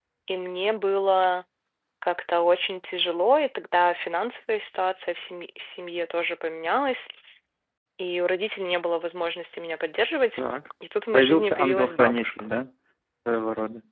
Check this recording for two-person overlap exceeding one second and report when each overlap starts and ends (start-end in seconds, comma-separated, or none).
11.1-12.5